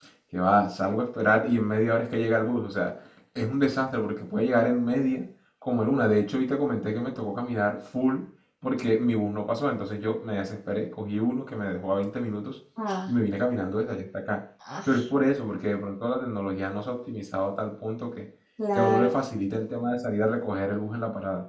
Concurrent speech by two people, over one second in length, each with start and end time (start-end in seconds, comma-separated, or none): none